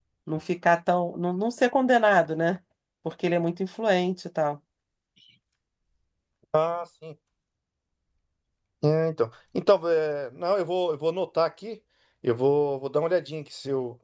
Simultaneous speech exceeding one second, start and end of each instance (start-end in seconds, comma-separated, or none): none